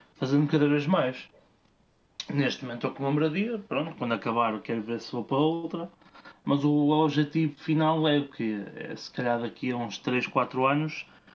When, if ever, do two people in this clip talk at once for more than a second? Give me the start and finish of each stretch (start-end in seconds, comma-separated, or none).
none